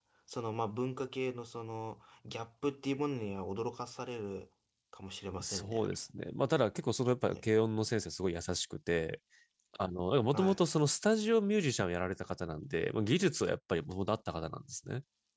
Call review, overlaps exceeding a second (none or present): none